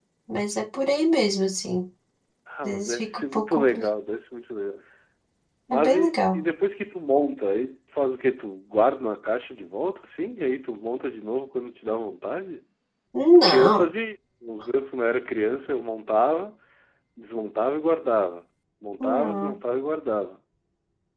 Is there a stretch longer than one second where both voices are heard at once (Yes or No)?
Yes